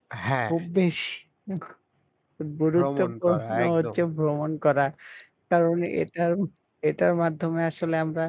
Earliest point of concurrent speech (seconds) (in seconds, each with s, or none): 2.8 s